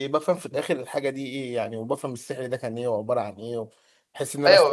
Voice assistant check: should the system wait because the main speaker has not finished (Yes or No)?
No